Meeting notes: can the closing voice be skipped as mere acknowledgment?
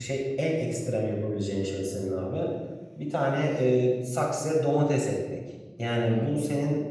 Yes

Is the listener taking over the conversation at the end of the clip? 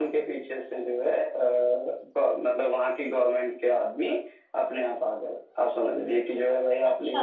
No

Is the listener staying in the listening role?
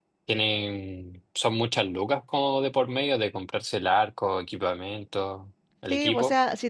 No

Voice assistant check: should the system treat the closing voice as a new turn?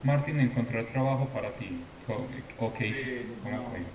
Yes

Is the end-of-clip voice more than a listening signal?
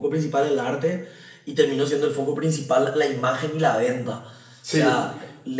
No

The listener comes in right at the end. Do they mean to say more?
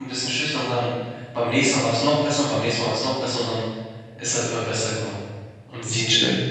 No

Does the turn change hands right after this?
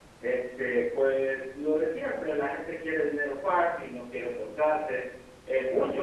No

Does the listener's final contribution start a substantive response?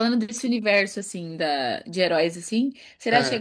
No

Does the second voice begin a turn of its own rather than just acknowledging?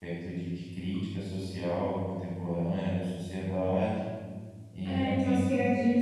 Yes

